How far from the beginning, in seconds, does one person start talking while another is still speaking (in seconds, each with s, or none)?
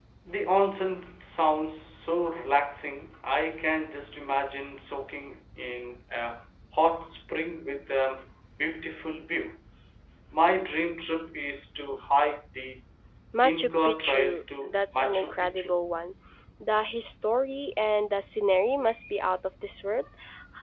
13.4 s